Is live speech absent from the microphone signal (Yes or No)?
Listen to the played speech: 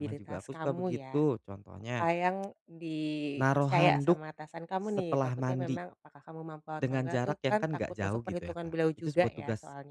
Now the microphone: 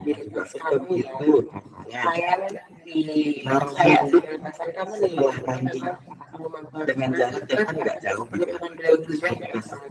Yes